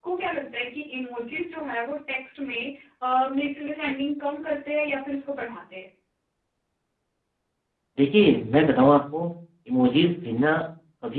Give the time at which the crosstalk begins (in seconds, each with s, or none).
none